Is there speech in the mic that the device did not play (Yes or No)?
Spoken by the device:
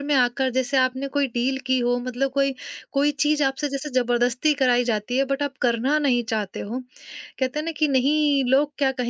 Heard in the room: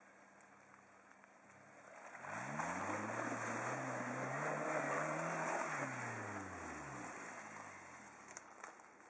No